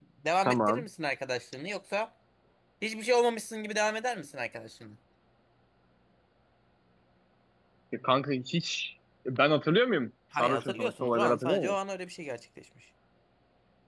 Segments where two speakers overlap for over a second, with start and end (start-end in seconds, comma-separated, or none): 10.4-11.8